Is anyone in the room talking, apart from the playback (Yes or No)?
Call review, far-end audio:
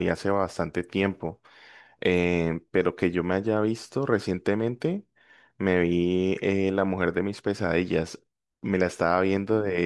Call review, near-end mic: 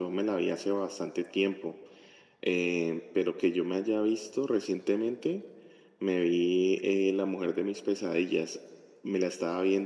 No